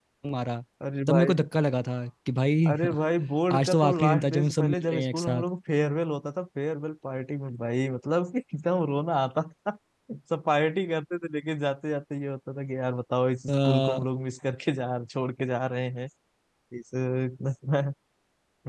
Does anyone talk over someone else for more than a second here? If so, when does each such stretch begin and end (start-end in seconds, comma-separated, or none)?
3.5-5.4